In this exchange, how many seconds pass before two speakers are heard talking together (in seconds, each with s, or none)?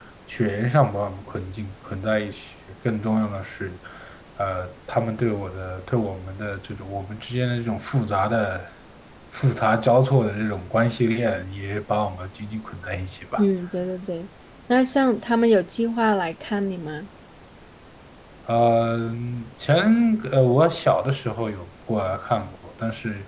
none